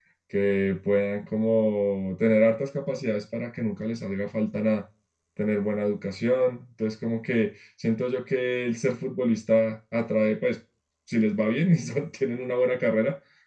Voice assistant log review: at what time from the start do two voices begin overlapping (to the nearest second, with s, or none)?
none